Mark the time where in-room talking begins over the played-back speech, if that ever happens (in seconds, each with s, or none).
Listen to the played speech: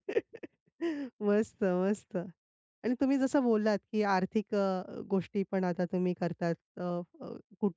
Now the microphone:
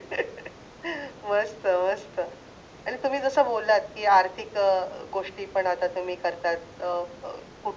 none